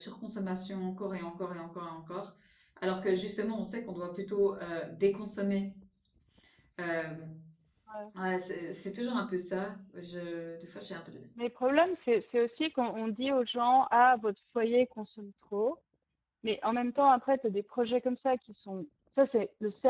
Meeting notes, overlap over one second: none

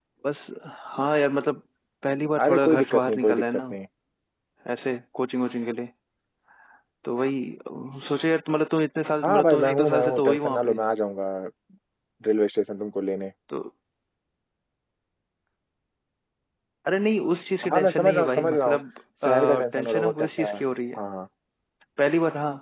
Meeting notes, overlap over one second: present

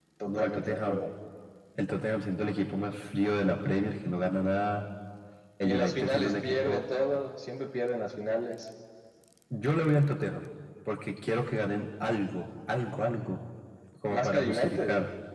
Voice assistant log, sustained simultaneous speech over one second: present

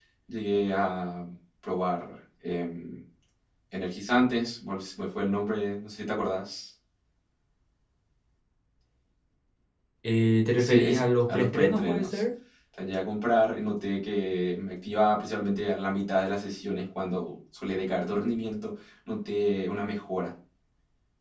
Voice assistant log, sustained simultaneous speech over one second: present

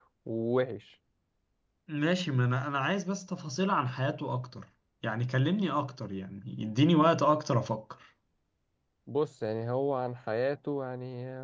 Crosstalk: none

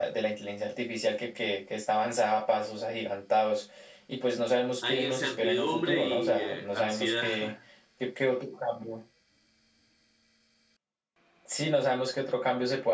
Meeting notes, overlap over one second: present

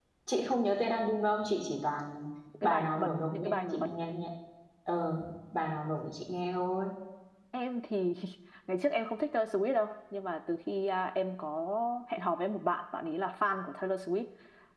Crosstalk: present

